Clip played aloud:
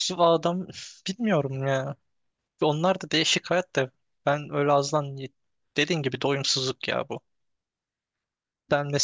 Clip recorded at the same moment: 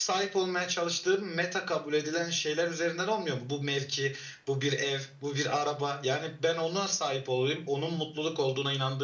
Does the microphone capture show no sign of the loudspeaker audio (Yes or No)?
Yes